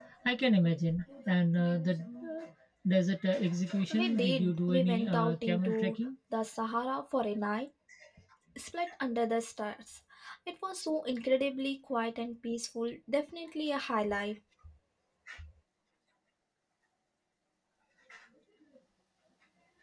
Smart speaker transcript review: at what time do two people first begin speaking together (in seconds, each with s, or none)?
3.9 s